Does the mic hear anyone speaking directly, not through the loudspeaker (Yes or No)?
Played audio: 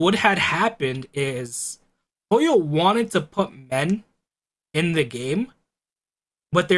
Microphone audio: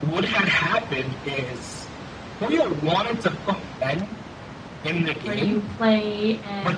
Yes